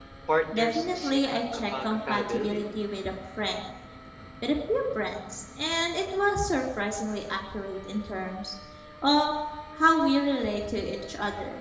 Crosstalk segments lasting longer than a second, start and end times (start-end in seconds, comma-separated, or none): 0.5-2.6